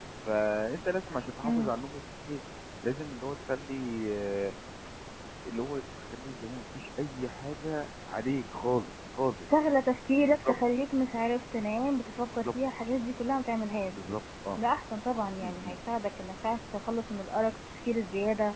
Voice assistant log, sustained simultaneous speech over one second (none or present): none